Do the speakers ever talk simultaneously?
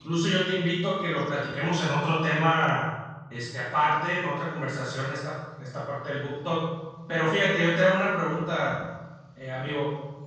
No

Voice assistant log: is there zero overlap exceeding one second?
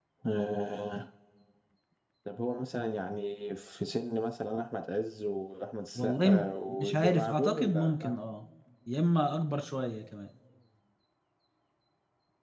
No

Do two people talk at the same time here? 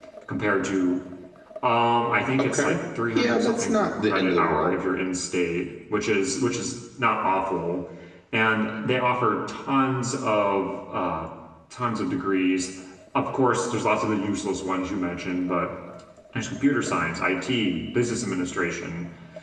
Yes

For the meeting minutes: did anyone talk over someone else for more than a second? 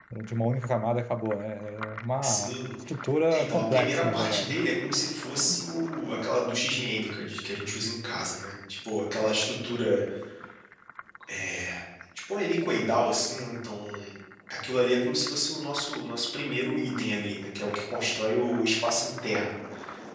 Yes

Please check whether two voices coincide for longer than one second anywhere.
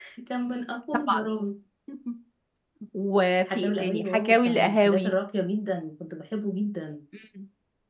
Yes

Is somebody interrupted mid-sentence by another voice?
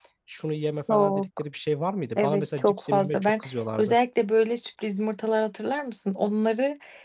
Yes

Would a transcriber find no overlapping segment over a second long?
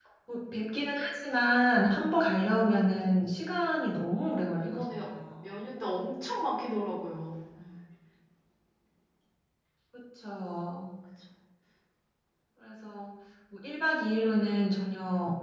Yes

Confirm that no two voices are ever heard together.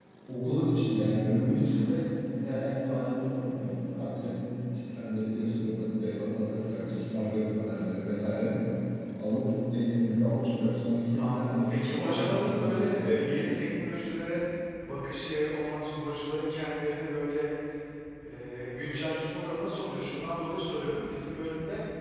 No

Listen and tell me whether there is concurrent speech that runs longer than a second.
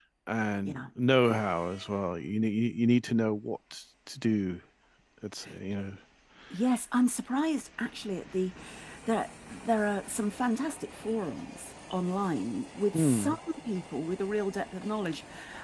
No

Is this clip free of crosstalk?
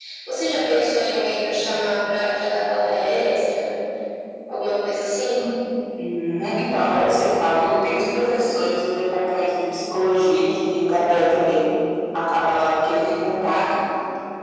Yes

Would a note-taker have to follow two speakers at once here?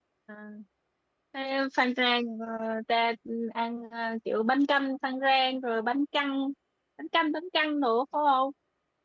No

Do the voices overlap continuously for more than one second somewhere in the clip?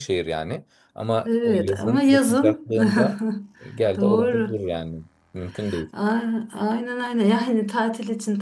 Yes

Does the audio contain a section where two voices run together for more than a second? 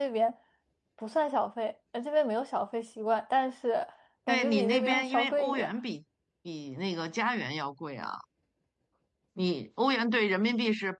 Yes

